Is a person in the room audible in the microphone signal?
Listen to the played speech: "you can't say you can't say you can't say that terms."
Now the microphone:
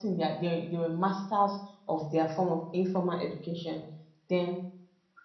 Yes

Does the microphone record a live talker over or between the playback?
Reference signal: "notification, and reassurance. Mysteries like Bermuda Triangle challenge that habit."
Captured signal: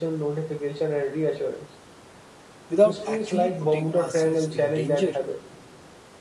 Yes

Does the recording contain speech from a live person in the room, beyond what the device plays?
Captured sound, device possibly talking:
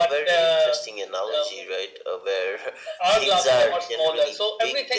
No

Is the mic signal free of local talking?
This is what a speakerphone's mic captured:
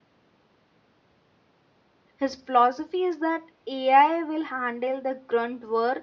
No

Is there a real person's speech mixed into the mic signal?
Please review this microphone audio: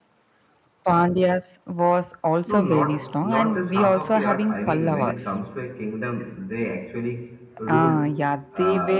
Yes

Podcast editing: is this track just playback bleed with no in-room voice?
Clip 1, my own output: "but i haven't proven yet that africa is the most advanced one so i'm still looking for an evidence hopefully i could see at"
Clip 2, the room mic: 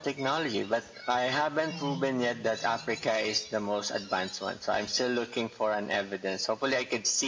No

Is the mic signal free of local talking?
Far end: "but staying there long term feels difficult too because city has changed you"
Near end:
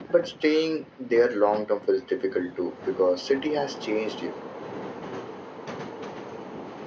Yes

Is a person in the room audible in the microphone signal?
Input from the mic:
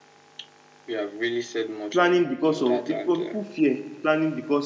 Yes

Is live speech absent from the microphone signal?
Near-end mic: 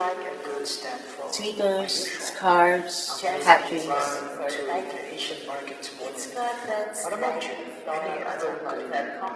No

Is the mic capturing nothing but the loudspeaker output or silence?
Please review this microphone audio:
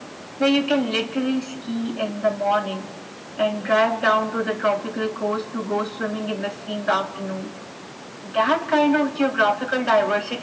Yes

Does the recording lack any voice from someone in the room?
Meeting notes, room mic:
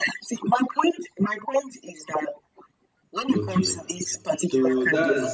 No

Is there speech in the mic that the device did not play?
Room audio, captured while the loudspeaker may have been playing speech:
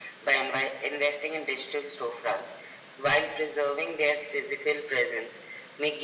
No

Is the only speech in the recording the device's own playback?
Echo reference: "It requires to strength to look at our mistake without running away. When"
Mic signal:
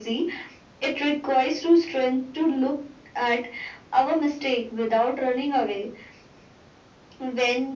Yes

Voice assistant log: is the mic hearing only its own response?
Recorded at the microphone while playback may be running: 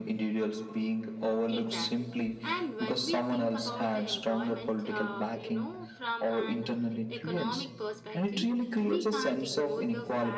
No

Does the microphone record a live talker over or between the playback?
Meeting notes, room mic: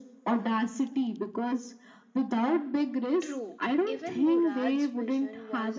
Yes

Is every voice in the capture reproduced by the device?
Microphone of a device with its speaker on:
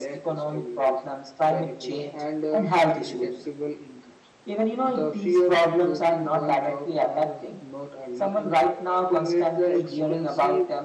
Yes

